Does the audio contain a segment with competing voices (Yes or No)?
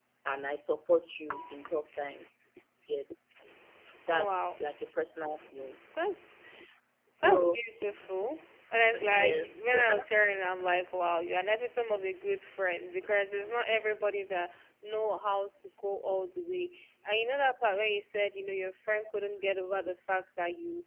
Yes